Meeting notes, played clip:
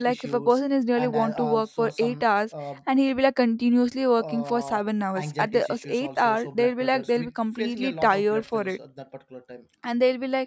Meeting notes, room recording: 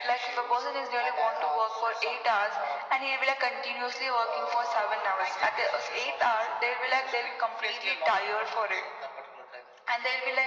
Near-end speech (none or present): none